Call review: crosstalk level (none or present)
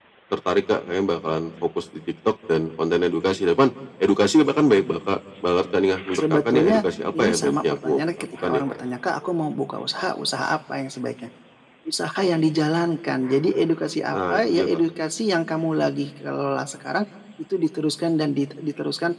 present